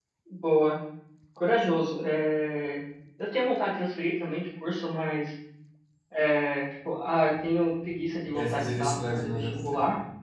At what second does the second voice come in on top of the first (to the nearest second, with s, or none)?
8 s